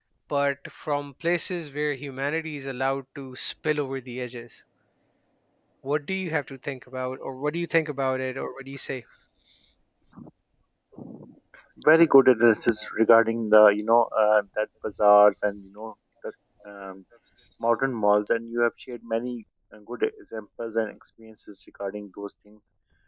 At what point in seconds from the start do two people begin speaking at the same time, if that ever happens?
none

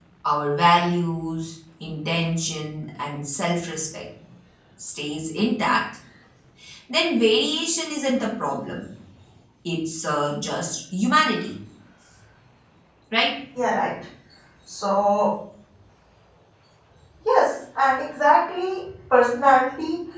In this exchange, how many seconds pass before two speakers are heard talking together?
none

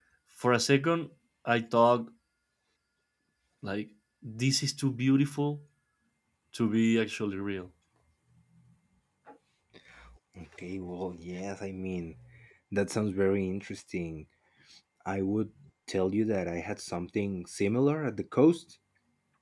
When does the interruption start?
none

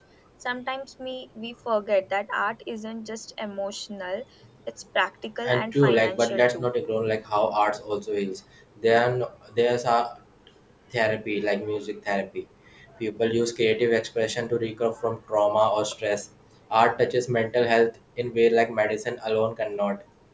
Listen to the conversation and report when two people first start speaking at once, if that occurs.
5.4 s

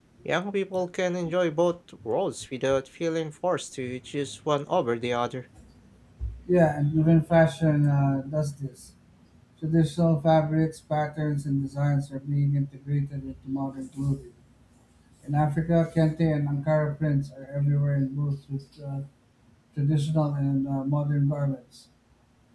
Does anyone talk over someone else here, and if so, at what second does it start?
none

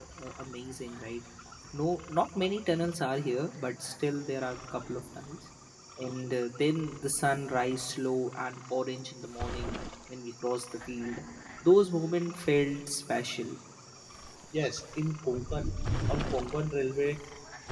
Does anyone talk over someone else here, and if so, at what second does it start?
none

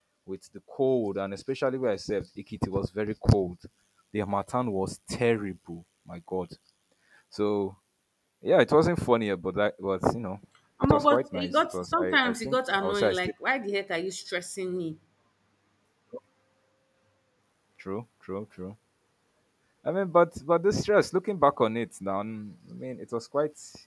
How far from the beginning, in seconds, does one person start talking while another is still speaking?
10.8 s

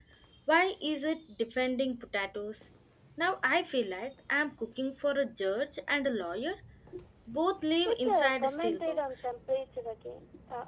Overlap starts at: 7.8 s

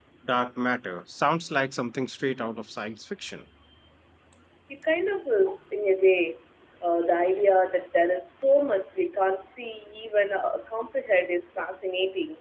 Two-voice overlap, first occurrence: none

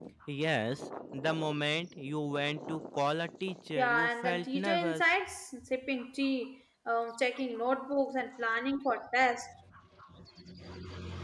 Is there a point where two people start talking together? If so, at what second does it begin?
3.8 s

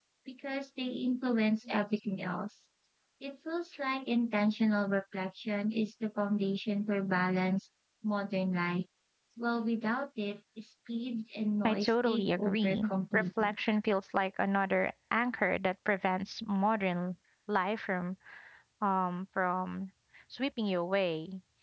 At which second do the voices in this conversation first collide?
11.6 s

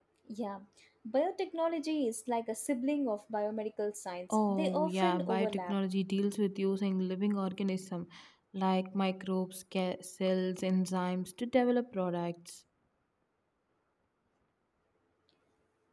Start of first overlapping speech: 4.3 s

